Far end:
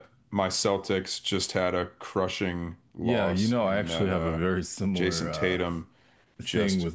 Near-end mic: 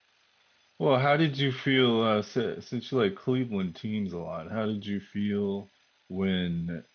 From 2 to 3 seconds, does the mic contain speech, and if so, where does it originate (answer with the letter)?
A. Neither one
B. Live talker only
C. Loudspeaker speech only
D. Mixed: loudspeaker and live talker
B